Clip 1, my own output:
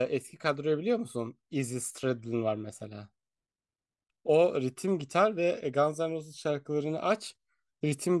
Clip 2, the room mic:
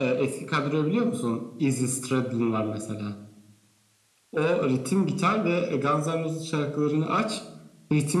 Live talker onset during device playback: none

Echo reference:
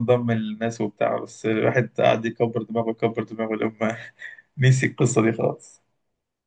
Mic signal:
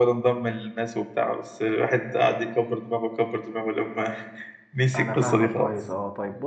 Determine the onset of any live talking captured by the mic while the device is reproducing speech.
4.9 s

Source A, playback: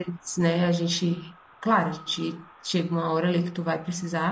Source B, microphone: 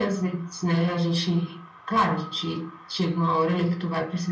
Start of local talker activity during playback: none

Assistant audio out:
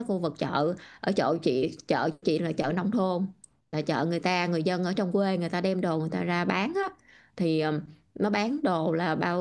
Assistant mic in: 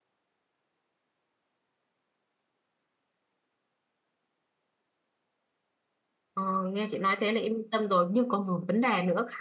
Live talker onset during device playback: 6.3 s

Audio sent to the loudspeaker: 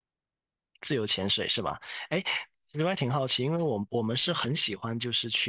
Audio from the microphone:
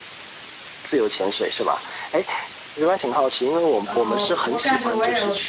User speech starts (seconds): 3.8 s

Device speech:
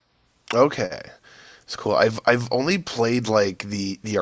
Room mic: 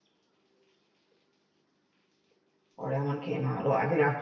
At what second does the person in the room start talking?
2.8 s

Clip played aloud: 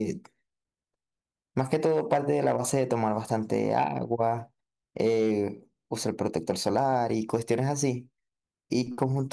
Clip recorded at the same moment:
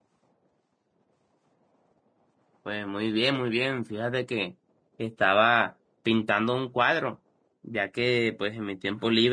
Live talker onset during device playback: 2.6 s

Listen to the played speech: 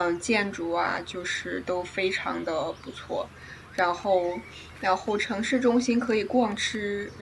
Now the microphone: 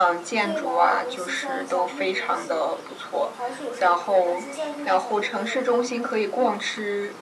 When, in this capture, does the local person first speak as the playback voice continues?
0.4 s

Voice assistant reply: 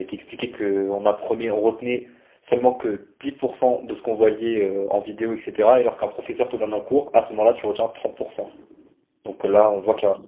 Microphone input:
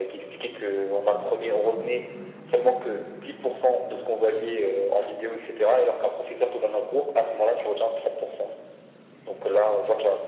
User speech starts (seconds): none

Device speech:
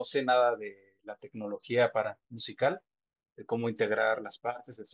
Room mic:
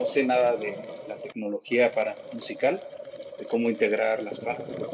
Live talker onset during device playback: none

